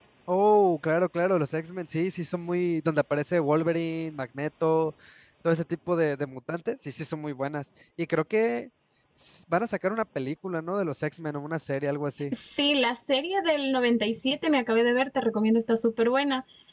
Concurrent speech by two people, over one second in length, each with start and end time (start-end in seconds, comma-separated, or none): none